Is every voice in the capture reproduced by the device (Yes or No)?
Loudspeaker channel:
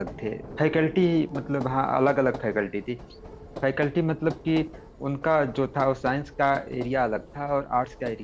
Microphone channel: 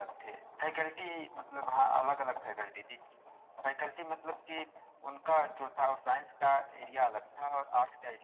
Yes